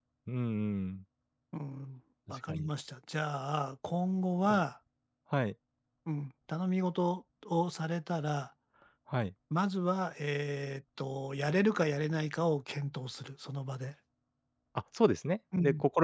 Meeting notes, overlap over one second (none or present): none